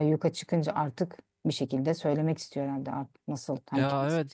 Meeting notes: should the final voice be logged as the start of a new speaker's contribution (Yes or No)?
Yes